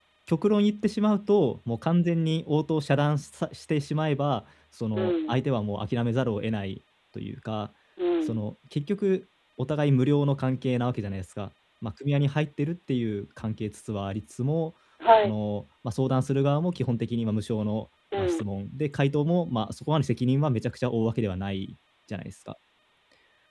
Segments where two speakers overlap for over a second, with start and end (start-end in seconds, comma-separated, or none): none